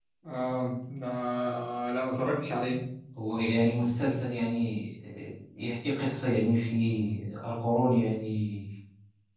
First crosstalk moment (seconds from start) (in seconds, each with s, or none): none